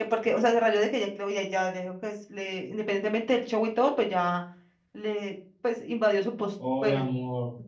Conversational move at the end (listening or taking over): taking over